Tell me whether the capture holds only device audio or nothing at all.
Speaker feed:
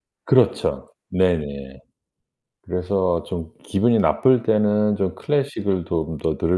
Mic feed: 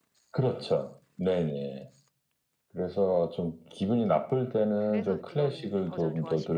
No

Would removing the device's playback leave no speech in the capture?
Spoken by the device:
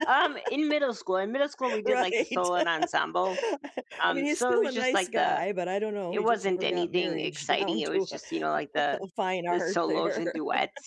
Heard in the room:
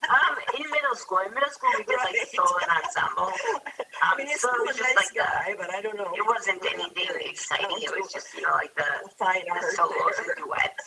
Yes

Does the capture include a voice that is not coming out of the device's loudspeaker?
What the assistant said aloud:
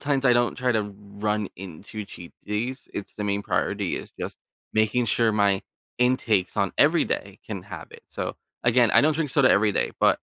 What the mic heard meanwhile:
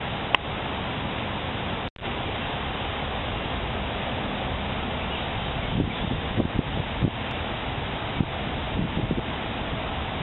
No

